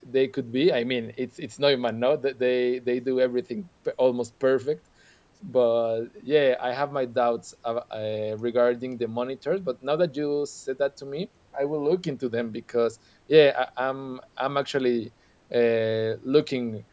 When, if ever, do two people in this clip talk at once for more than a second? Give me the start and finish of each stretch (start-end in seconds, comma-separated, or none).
none